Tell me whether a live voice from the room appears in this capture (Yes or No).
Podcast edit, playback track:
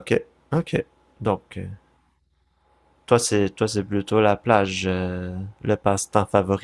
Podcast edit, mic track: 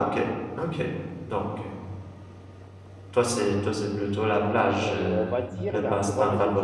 Yes